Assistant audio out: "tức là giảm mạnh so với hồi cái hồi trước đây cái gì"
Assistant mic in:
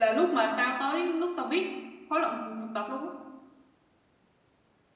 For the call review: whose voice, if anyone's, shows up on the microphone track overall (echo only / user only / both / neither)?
user only